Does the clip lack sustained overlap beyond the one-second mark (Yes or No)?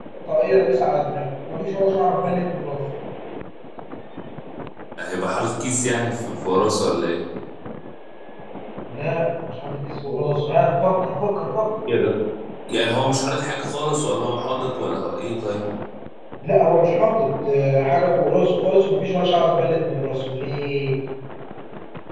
Yes